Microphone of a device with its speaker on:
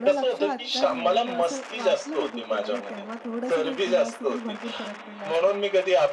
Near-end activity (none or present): present